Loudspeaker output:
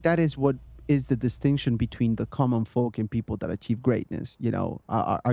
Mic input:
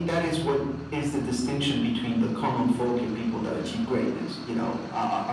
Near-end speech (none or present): none